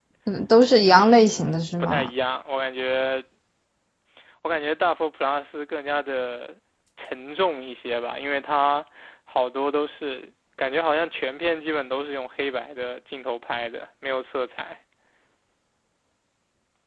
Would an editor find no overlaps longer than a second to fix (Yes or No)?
No